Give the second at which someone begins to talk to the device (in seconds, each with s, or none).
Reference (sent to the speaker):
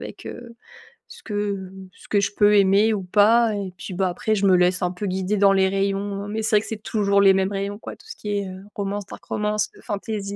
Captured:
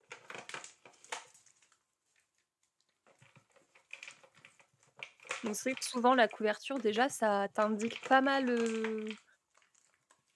5.4 s